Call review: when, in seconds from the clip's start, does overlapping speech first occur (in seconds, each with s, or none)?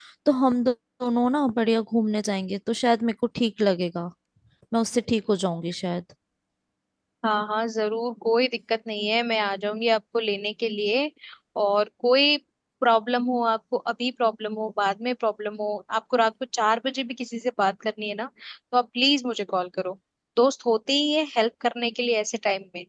none